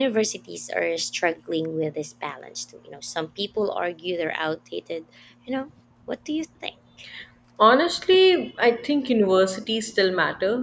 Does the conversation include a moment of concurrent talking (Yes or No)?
No